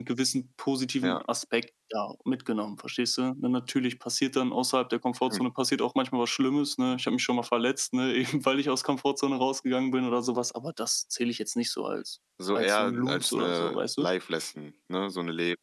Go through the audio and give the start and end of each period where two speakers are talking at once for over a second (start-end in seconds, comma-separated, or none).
12.5-14.1